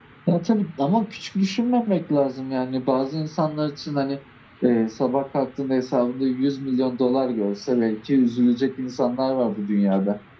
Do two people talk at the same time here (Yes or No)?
No